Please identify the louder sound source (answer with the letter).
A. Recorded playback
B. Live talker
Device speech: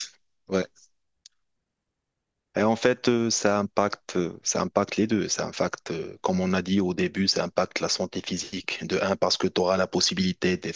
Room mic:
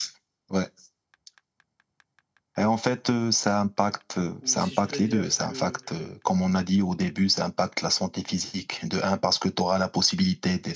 A